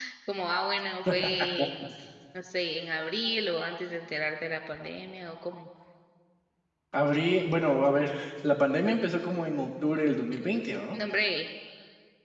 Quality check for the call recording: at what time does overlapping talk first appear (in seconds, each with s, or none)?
none